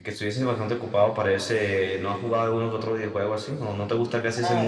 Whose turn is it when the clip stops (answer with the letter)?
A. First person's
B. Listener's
B